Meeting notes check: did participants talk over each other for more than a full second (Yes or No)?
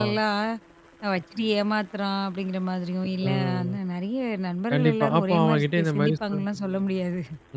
Yes